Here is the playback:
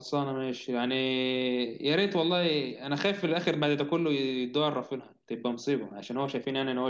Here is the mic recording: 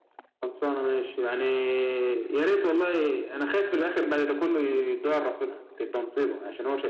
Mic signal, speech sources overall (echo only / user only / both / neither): echo only